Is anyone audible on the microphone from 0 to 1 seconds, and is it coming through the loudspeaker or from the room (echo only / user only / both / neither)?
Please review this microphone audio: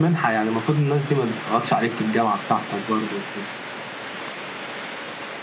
echo only